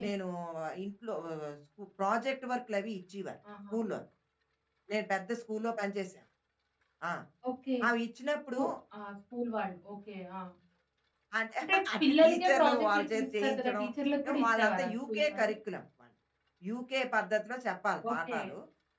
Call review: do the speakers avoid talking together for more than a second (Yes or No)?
No